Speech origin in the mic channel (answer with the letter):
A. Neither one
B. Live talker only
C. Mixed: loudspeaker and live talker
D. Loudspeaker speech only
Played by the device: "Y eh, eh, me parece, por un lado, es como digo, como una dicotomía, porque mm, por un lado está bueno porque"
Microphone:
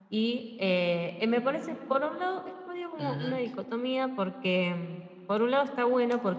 C